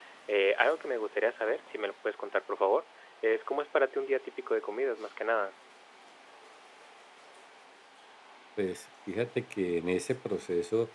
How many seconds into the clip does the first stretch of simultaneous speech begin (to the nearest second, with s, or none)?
none